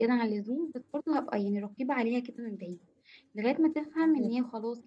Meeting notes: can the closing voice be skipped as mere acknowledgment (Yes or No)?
Yes